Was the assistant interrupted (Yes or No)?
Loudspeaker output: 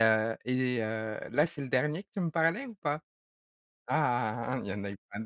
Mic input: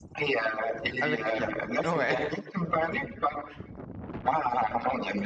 Yes